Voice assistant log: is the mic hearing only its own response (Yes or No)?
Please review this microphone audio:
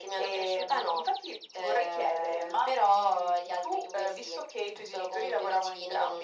Yes